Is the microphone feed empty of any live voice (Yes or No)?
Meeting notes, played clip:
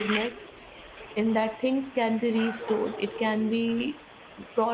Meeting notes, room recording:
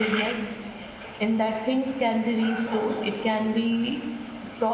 Yes